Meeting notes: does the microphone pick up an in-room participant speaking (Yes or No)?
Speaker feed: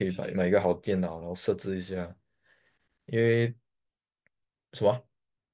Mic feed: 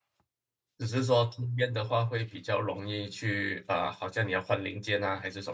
Yes